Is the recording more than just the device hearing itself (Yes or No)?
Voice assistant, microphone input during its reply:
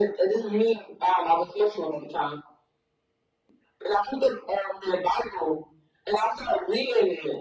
No